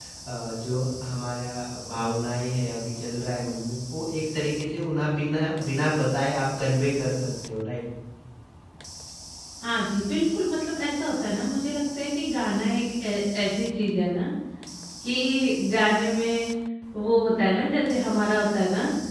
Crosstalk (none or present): none